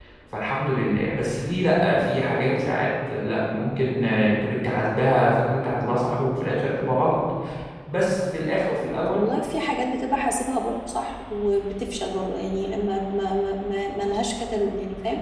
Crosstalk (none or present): none